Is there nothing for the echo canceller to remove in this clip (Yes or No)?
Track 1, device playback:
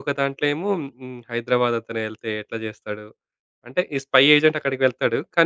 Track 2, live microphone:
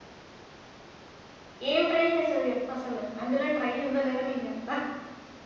Yes